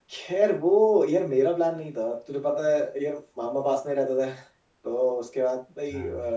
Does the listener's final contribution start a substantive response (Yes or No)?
No